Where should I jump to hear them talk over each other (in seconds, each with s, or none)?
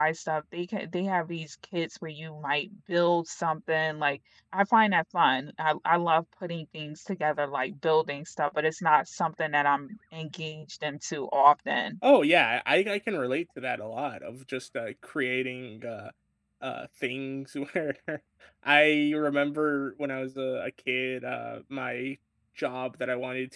none